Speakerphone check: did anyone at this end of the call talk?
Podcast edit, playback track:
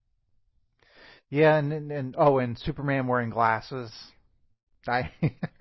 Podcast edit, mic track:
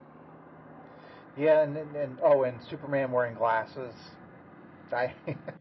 No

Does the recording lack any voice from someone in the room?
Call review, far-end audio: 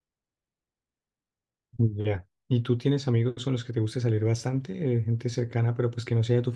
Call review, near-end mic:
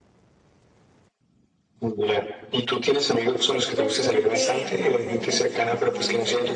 No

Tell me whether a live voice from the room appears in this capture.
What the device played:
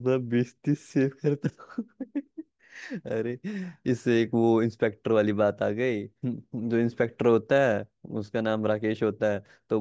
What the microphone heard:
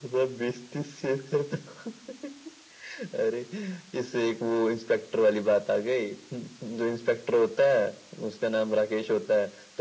No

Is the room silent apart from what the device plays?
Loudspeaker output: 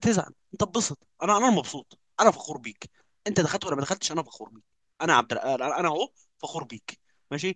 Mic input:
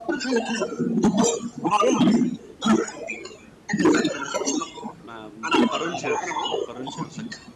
No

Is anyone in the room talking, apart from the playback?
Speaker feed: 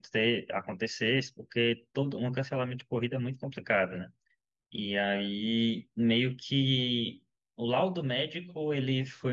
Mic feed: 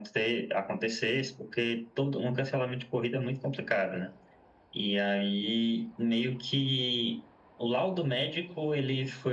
No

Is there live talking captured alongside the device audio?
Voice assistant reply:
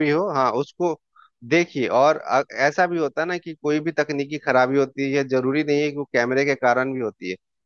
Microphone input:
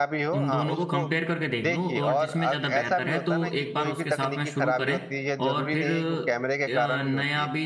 Yes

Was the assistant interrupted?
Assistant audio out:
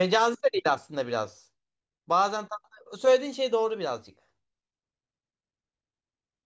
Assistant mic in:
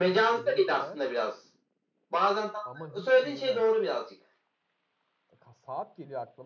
Yes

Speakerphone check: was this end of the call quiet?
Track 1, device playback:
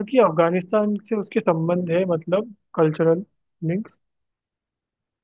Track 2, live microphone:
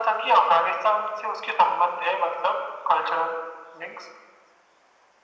Yes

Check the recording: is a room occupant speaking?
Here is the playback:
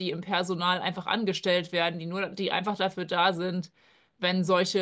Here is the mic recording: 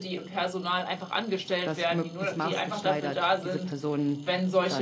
Yes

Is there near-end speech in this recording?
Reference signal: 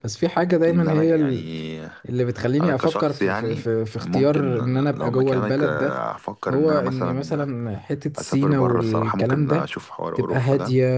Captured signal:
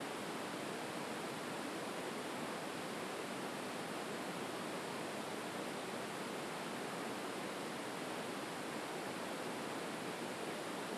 No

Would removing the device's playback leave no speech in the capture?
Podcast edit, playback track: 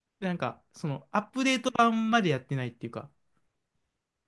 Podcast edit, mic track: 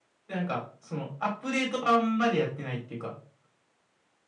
Yes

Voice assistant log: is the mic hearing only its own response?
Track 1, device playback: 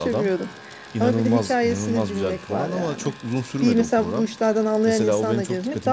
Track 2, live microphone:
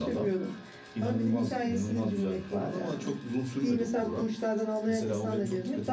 Yes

